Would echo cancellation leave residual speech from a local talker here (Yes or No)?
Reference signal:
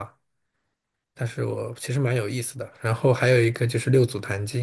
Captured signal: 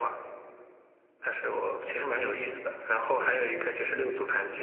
No